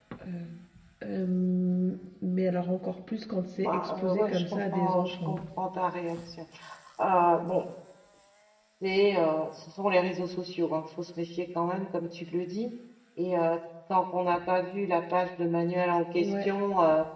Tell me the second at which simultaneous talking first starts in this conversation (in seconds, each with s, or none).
3.6 s